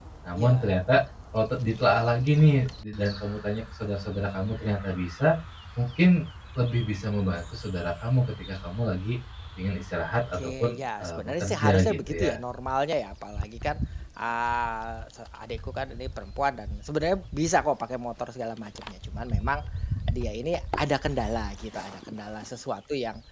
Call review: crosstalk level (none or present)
present